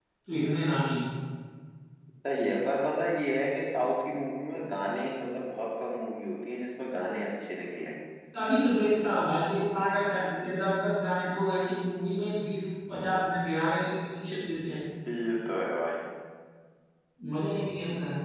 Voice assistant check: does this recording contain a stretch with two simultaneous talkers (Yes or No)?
No